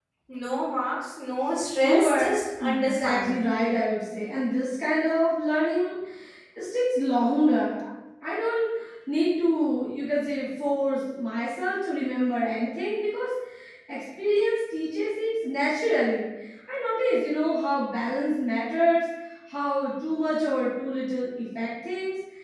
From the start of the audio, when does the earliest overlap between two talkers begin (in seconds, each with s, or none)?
1.8 s